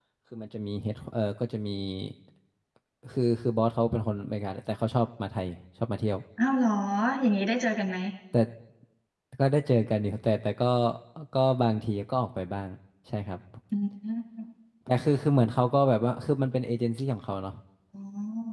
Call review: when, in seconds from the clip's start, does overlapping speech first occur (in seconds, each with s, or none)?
none